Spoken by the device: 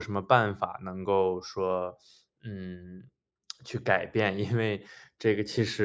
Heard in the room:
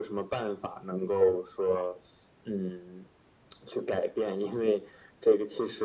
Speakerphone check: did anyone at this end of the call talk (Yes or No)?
No